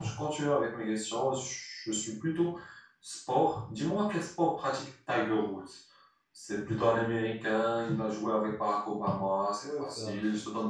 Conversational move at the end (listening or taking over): taking over